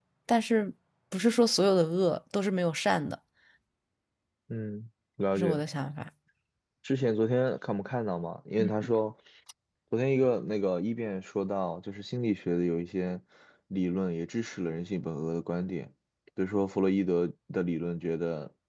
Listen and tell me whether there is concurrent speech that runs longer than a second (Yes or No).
No